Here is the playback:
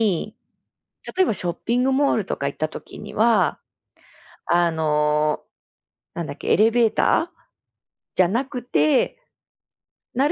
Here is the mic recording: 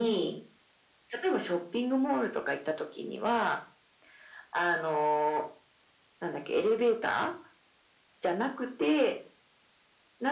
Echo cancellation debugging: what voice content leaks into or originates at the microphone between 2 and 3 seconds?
echo only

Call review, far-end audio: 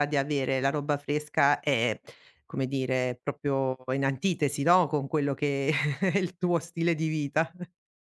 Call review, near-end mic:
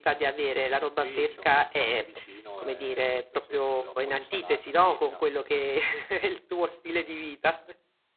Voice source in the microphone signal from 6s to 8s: echo only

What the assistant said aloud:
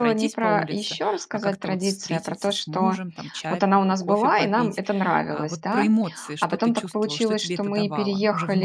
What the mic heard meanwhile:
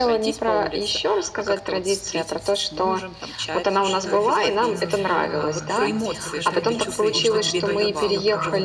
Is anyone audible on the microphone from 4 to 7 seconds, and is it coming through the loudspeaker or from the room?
both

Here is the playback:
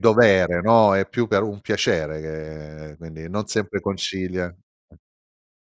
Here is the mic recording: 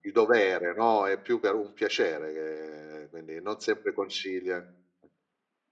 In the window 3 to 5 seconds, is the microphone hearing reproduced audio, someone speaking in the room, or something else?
echo only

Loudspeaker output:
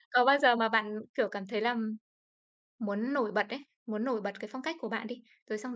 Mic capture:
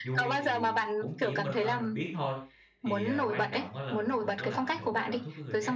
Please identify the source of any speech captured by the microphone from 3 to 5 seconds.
both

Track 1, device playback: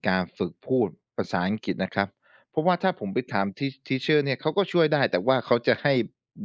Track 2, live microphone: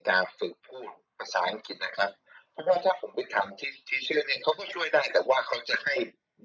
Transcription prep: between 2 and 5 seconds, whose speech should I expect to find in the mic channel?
echo only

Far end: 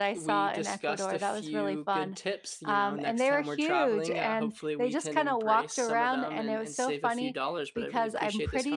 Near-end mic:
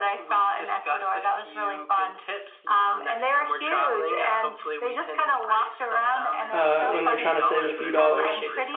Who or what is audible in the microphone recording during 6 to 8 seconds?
both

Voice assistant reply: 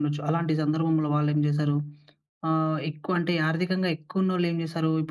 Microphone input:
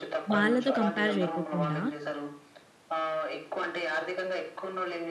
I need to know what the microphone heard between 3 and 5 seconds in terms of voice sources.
echo only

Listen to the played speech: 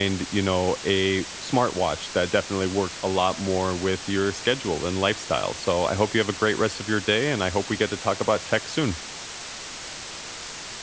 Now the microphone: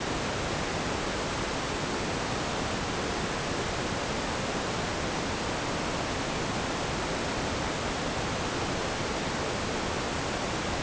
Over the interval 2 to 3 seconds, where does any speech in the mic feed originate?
neither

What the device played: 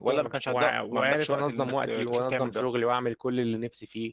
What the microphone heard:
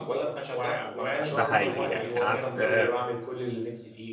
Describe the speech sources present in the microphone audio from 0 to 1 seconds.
echo only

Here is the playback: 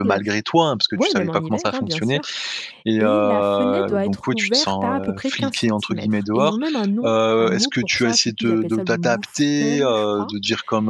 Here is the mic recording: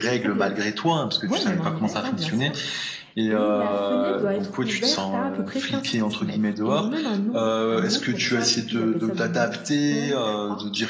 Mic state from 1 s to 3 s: echo only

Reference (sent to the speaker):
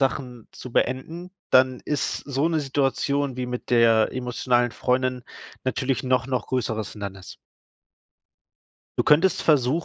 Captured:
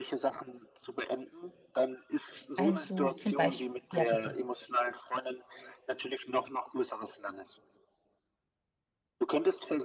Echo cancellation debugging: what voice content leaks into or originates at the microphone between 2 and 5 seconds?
both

